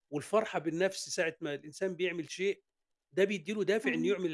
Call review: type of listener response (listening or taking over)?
listening